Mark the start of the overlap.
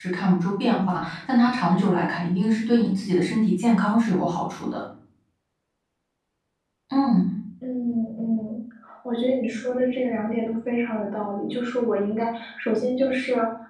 none

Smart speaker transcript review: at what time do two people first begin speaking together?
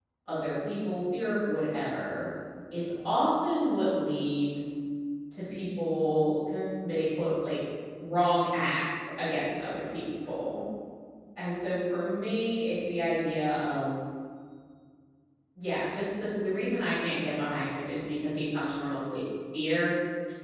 none

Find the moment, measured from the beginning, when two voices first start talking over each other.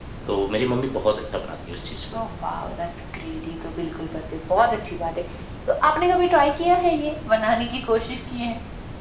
none

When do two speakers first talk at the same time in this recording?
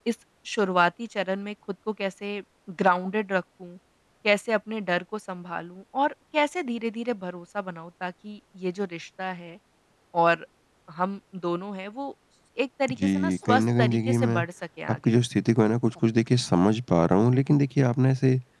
13.0 s

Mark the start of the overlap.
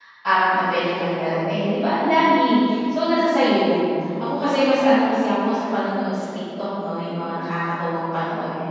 none

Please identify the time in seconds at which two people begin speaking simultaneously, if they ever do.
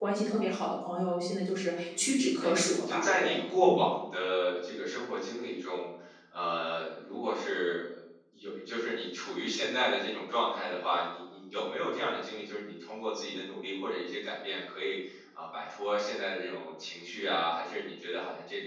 1.9 s

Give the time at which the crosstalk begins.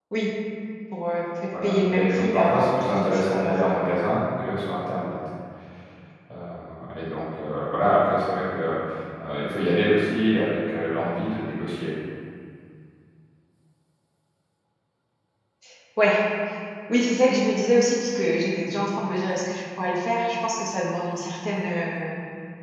1.6 s

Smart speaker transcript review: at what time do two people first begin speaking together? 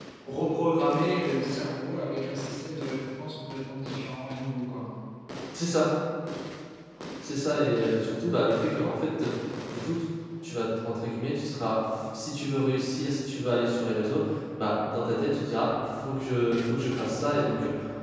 none

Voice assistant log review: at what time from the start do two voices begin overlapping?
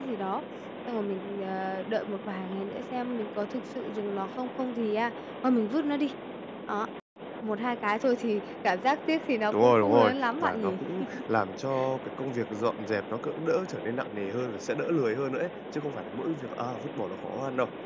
9.5 s

